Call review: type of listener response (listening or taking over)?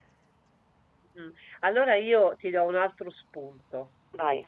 listening